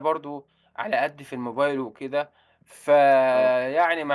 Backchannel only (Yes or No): Yes